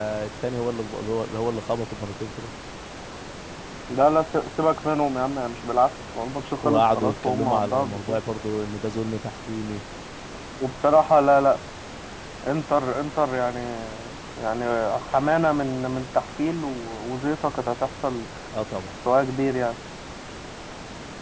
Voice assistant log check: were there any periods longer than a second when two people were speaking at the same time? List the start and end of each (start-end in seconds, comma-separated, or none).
6.6-8.2